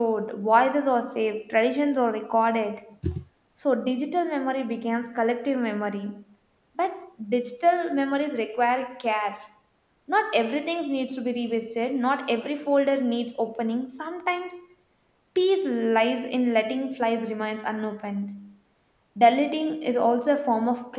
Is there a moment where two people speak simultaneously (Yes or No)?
No